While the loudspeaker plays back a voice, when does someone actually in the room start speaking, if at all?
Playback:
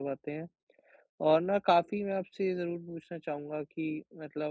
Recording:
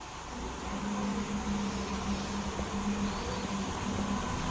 none

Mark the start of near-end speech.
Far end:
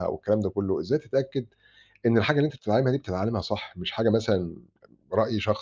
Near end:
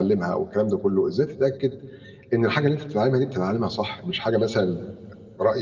none

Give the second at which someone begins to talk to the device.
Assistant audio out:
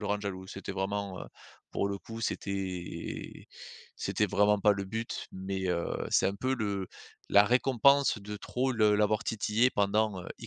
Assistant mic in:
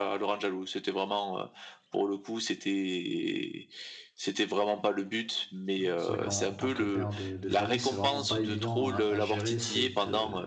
5.8 s

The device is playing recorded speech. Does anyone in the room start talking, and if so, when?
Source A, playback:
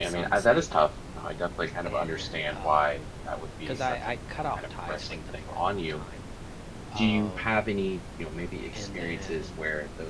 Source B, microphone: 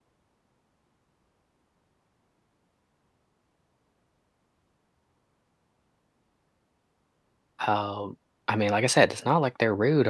7.7 s

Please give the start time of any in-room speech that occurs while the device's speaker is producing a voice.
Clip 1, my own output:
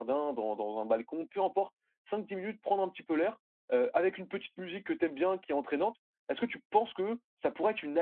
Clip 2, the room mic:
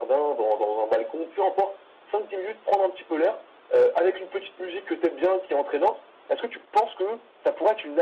none

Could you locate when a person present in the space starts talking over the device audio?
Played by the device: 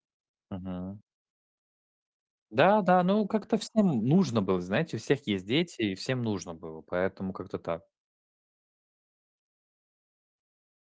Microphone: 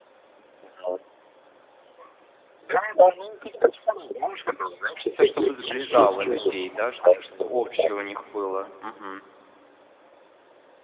4.9 s

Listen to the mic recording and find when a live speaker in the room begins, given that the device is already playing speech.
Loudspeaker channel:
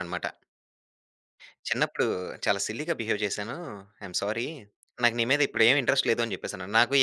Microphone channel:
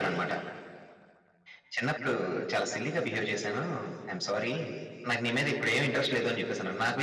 none

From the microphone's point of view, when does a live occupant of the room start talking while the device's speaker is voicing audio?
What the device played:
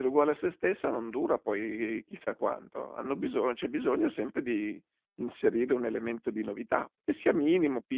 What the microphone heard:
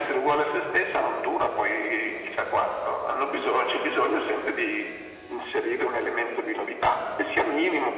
none

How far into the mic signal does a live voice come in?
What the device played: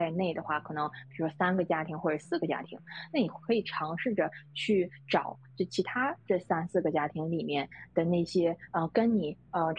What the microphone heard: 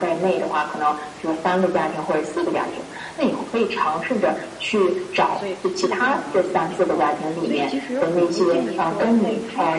5.2 s

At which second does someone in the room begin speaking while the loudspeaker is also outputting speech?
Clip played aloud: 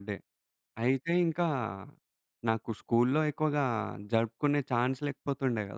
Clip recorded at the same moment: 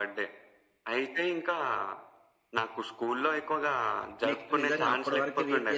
4.3 s

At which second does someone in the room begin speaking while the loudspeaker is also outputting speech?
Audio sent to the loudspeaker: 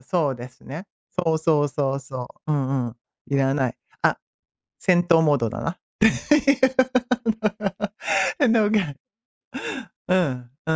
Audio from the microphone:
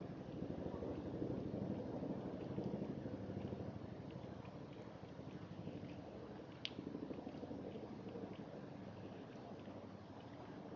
none

